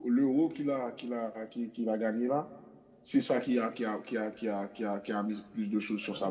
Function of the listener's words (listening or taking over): taking over